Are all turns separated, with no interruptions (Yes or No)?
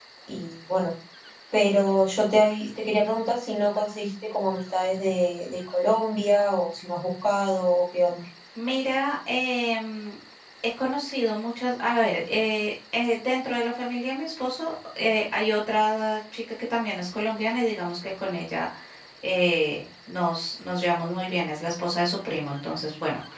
Yes